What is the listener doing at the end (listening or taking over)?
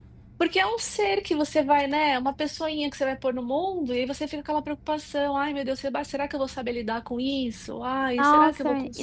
taking over